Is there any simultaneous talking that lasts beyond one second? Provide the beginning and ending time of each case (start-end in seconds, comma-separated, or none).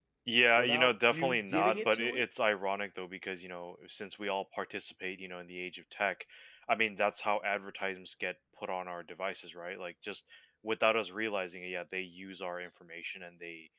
0.6-2.2